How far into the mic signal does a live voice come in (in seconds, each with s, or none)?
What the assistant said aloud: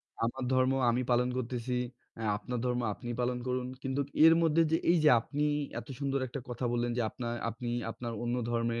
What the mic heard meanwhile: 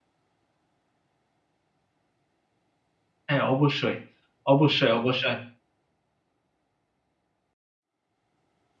3.3 s